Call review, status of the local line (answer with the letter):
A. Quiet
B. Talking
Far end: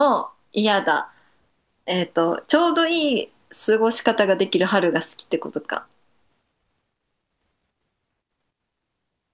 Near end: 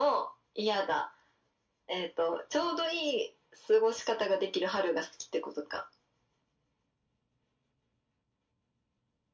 A